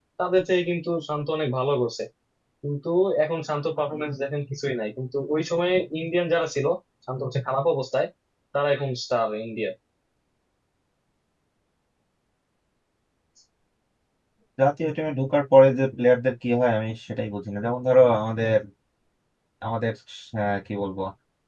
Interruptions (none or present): none